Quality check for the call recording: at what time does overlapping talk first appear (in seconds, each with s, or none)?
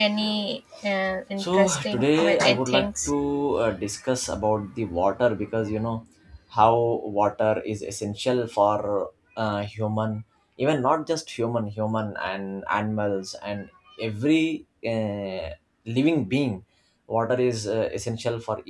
1.4 s